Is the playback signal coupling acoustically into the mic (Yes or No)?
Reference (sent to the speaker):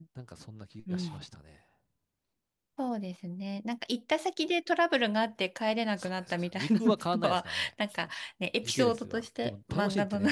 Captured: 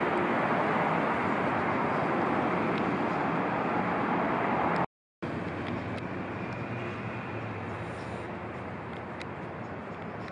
No